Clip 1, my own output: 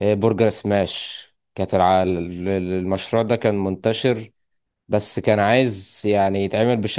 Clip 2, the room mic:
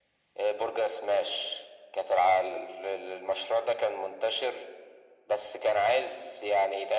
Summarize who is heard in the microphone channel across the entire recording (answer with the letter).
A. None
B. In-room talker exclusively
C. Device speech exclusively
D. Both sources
C